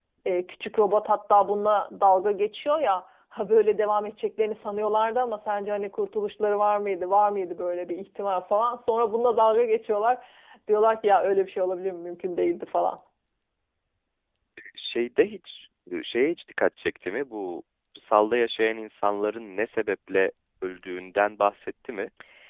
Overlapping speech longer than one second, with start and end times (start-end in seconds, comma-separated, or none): none